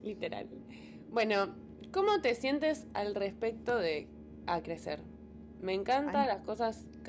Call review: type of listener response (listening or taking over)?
listening